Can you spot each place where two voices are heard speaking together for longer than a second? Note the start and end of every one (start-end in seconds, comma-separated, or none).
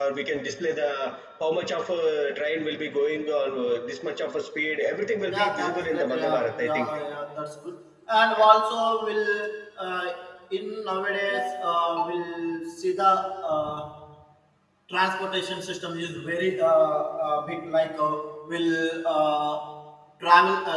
5.3-6.9